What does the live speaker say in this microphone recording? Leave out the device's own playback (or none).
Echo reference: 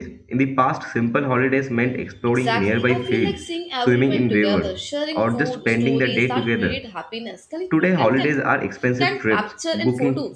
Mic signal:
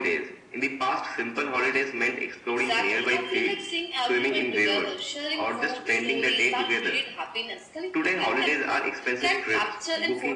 none